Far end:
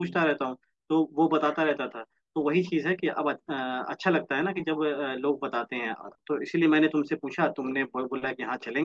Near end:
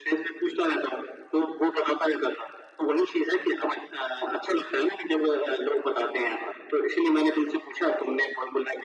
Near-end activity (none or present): none